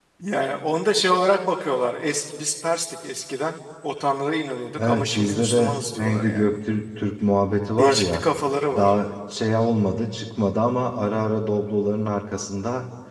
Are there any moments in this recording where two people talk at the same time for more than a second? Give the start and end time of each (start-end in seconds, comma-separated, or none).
4.8-6.5